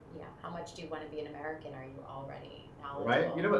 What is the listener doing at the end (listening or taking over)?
taking over